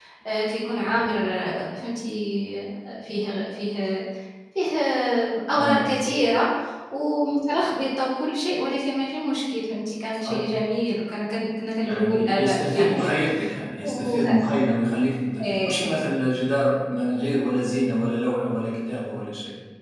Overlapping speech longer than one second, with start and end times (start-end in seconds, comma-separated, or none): 11.8-13.2